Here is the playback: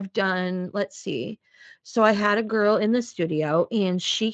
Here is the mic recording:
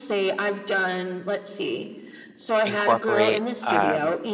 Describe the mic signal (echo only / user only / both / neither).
both